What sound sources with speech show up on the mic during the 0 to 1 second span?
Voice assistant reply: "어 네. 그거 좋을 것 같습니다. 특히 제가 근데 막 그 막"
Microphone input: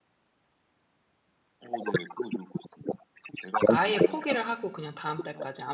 neither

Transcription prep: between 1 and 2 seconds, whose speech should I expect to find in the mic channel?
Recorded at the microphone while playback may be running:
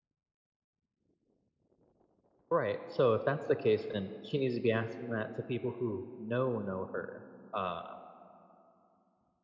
neither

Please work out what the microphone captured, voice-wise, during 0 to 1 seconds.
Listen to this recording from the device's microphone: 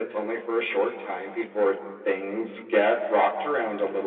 echo only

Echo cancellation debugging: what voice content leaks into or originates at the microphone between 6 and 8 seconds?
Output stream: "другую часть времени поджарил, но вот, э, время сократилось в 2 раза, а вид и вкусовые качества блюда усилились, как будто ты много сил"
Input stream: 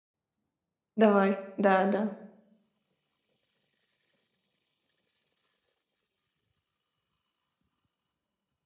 neither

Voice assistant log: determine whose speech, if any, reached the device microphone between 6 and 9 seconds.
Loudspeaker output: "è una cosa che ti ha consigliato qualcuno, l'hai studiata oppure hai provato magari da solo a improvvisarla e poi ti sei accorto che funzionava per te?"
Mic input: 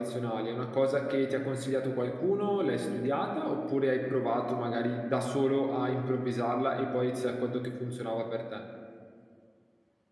echo only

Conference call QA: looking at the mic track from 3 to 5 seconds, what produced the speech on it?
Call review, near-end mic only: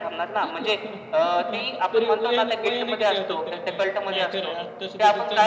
both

